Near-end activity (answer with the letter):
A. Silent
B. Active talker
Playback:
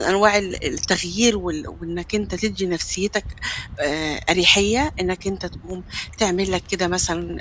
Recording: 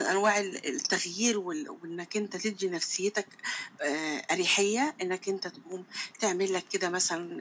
A